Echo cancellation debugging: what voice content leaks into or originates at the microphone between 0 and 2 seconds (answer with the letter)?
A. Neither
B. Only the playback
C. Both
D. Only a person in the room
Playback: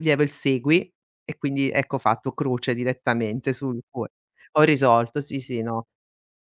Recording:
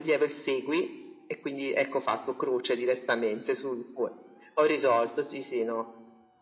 B